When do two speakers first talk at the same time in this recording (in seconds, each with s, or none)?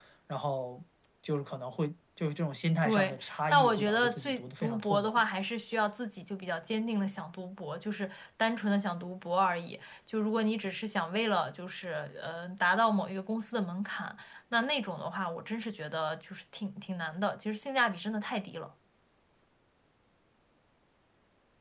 2.8 s